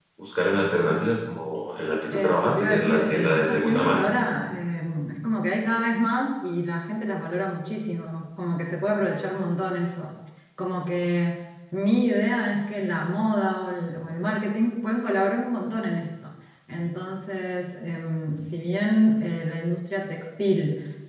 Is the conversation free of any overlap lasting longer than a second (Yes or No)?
No